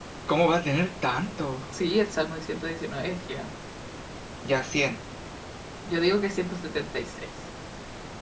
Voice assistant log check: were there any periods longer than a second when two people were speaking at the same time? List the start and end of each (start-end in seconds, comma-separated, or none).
none